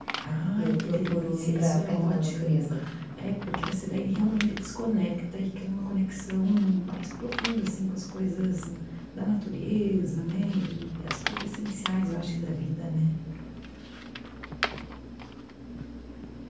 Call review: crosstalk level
present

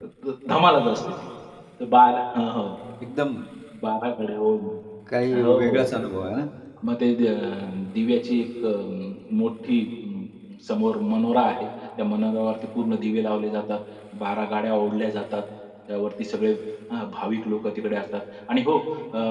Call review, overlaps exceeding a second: none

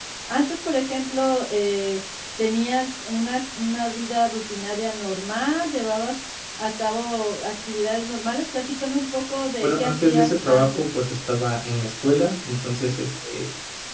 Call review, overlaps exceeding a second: present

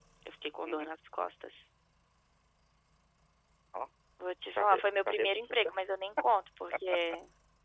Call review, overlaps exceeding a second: present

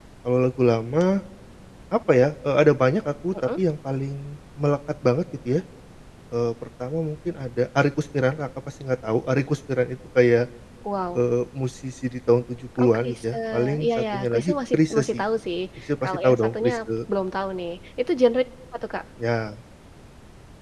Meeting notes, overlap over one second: present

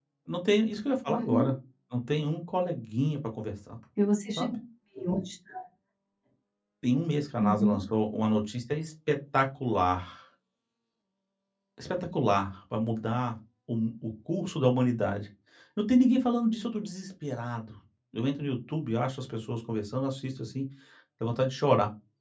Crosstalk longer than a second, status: none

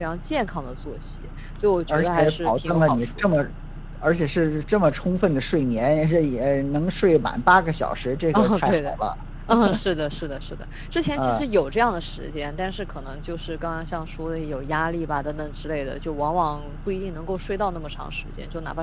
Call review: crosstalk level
present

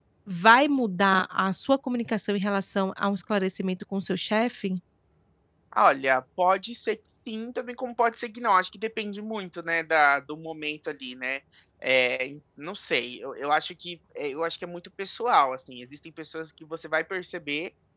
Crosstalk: none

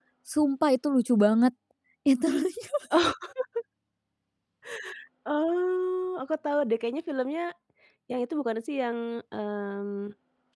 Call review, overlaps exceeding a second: none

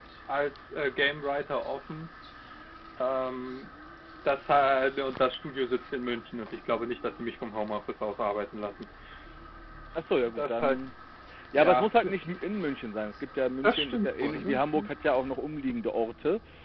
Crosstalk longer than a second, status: present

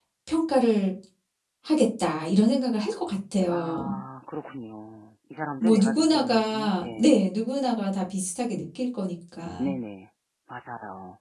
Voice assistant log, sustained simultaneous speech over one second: present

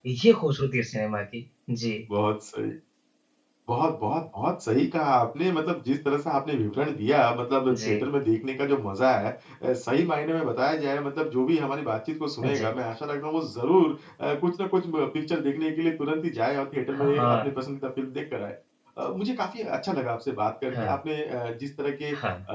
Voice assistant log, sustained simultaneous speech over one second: none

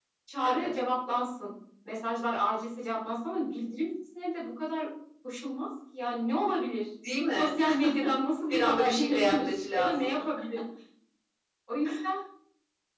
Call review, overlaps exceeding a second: present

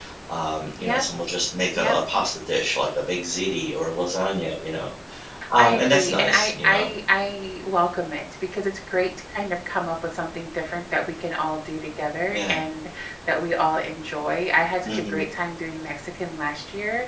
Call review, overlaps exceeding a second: present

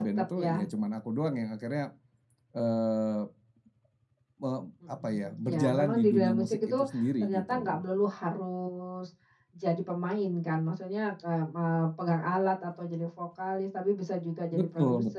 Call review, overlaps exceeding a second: present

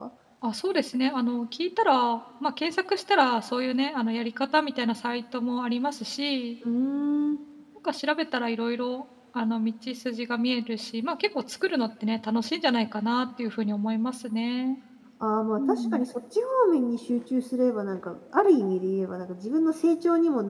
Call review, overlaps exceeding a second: none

